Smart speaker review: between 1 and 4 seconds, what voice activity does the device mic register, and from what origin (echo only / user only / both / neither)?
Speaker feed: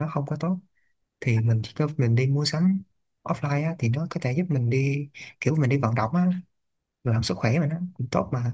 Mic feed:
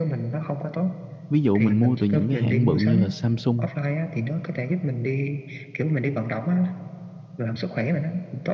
both